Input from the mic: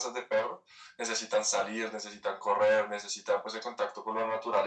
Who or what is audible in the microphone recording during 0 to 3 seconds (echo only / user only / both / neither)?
echo only